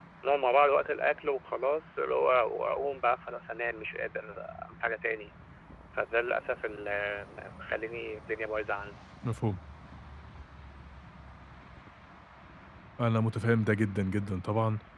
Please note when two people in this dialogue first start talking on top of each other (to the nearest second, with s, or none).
none